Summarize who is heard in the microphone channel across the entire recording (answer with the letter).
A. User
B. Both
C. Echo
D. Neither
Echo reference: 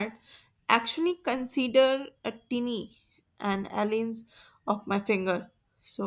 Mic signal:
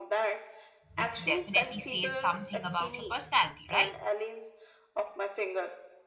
B